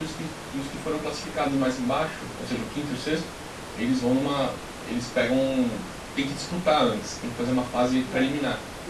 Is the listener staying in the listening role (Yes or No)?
No